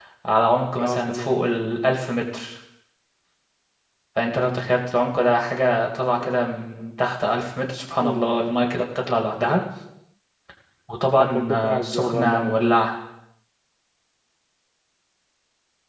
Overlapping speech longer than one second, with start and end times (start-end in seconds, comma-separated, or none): 11.2-12.5